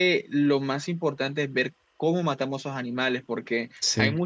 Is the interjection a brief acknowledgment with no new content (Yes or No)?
Yes